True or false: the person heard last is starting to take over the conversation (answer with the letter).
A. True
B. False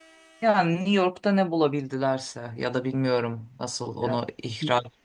B